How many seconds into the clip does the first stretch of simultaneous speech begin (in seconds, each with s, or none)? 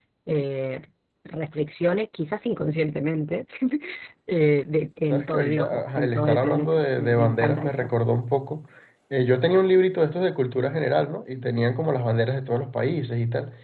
5.1 s